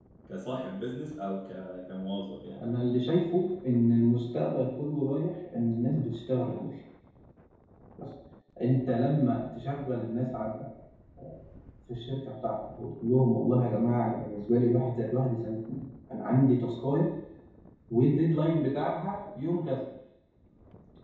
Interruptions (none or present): none